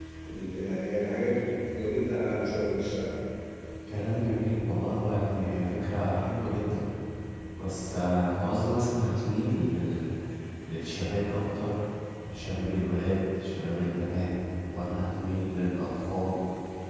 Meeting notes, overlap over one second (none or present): none